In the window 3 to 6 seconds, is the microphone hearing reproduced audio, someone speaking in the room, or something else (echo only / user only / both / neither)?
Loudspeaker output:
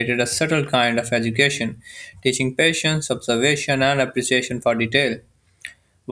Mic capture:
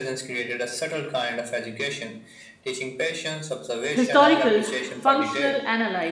both